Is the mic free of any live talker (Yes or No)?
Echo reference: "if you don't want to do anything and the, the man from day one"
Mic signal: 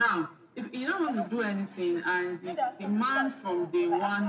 No